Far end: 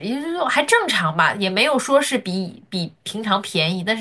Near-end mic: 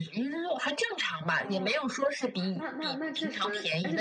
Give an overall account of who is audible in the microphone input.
both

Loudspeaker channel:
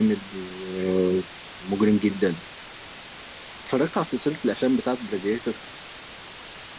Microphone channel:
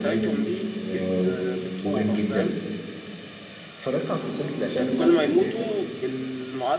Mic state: both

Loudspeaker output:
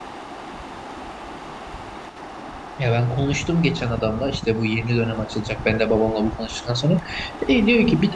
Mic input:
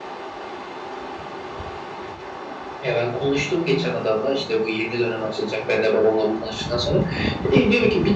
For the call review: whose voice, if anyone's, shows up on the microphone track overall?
echo only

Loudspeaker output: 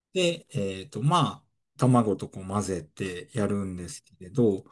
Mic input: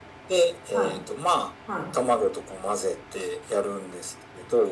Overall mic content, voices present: both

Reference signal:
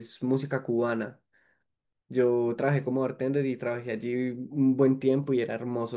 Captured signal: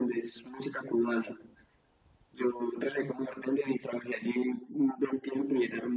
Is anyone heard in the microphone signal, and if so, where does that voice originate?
echo only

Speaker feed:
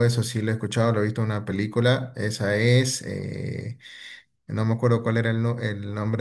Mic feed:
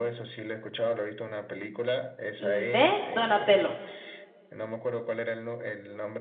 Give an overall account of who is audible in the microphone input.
both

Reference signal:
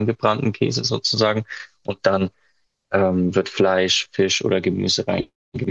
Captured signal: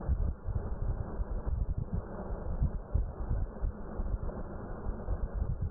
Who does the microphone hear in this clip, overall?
neither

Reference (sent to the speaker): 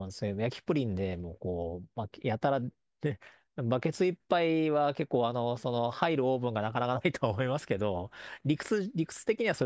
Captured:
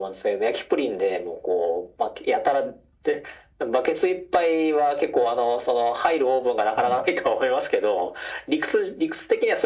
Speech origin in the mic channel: both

